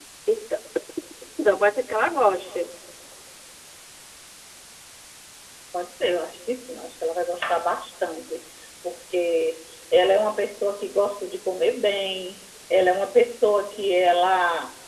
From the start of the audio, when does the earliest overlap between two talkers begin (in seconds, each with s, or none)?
none